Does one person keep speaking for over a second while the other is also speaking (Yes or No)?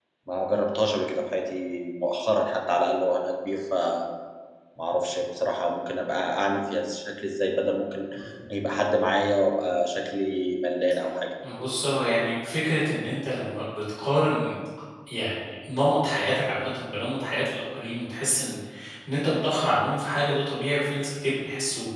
No